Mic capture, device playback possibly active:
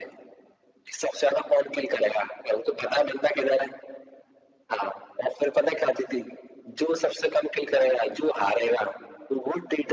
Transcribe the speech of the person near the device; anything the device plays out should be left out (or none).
none